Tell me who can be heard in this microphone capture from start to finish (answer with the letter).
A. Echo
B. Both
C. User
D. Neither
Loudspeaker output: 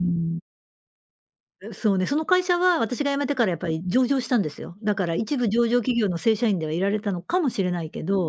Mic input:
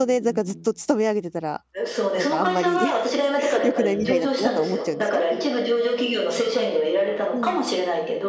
B